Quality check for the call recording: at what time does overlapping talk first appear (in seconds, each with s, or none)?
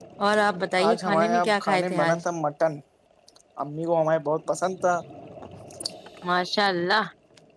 0.9 s